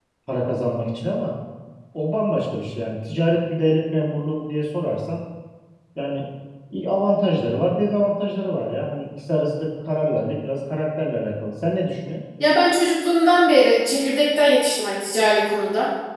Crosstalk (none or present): none